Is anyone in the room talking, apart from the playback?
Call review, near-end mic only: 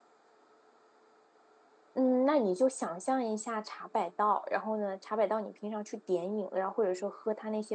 Yes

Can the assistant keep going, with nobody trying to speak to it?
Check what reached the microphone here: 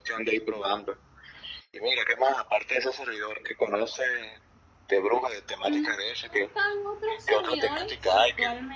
No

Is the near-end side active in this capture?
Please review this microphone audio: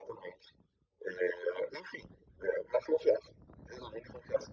No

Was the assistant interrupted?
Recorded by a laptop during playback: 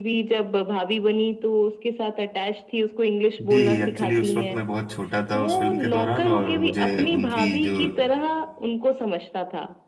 Yes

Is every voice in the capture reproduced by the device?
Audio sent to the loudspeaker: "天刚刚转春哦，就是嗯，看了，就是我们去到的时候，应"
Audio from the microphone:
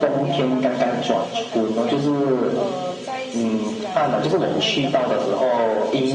No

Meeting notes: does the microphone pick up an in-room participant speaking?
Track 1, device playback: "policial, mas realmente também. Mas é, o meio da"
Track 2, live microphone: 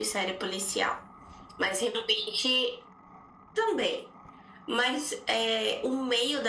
No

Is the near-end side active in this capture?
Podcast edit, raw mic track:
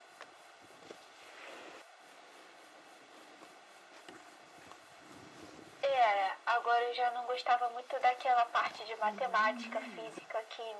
Yes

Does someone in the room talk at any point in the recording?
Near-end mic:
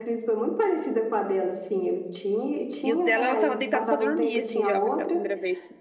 Yes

